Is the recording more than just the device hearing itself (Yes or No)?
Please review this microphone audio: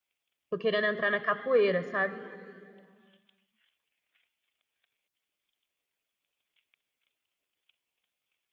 Yes